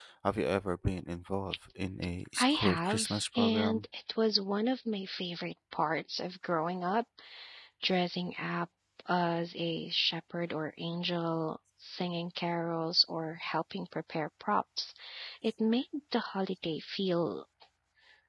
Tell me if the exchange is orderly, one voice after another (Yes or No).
No